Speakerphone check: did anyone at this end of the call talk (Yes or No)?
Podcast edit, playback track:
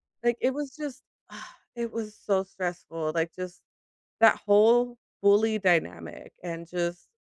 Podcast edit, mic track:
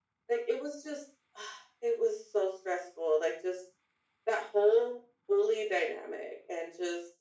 No